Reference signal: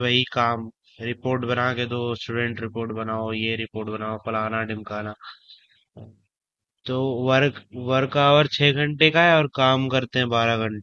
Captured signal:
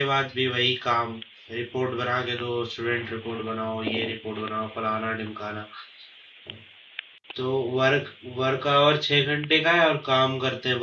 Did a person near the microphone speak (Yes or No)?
No